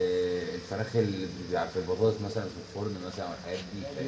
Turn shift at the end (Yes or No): Yes